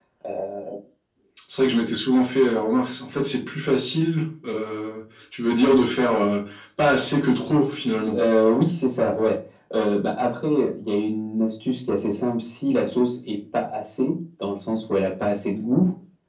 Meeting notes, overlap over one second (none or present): none